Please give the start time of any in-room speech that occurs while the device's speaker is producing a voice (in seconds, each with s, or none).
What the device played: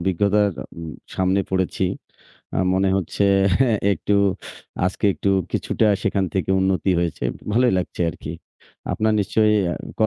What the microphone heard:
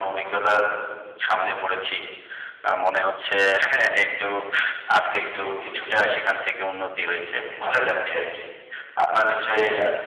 none